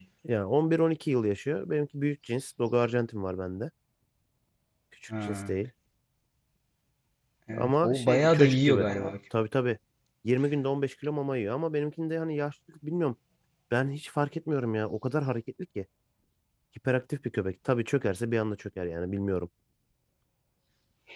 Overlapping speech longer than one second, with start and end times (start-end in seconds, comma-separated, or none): 7.5-8.9